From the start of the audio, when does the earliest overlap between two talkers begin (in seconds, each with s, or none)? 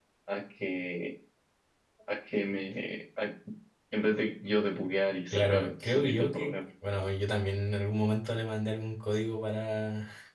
5.3 s